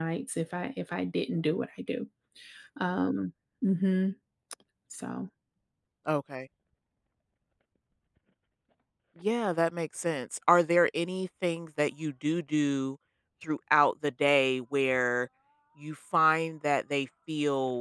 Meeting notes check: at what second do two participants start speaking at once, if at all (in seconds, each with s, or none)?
none